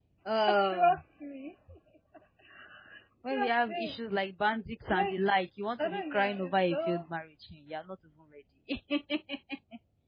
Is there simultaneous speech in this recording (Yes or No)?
Yes